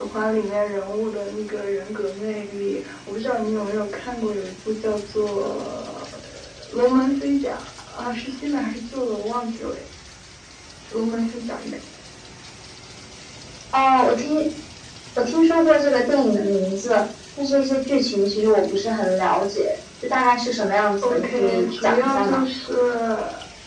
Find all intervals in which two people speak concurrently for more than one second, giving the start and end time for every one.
21.0-22.4

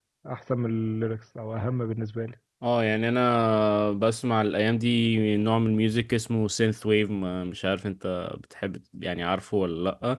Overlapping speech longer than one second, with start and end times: none

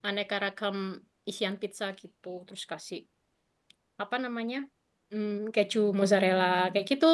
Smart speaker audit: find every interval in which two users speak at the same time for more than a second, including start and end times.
none

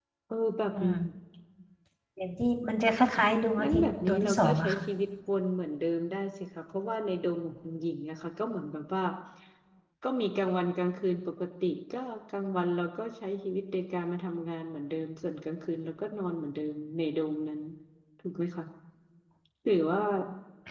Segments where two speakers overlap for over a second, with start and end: 3.6-4.8

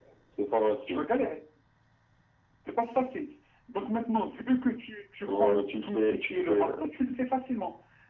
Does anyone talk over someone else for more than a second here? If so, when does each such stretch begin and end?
5.2-6.7

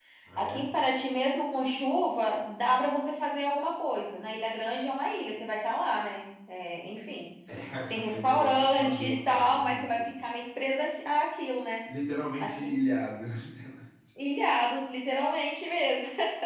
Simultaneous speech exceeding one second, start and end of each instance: 8.1-10.1

